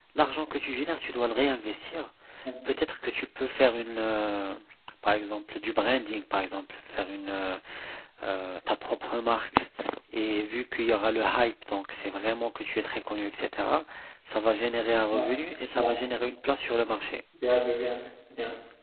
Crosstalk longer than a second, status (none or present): none